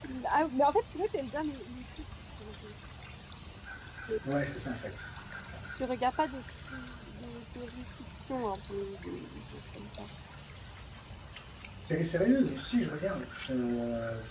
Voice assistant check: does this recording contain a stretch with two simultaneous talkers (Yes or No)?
No